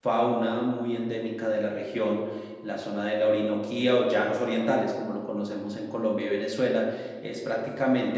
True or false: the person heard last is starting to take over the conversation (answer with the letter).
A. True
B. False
B